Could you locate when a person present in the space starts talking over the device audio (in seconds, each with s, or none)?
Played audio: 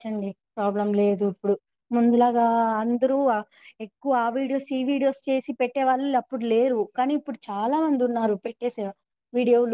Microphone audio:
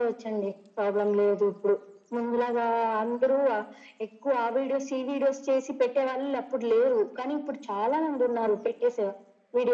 none